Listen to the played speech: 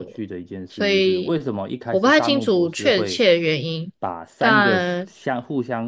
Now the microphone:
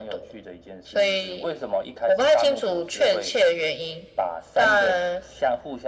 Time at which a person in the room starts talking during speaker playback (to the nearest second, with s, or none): none